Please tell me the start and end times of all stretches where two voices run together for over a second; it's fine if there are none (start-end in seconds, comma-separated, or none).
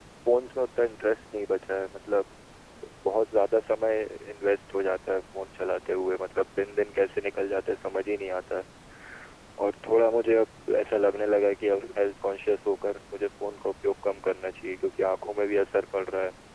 none